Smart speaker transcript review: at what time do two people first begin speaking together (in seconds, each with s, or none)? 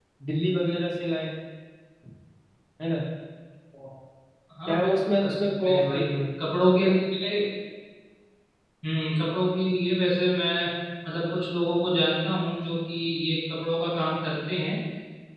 4.7 s